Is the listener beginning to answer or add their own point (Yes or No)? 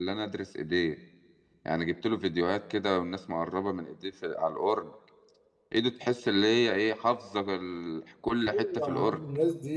Yes